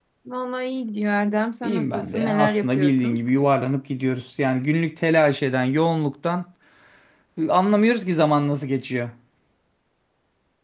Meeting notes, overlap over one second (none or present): present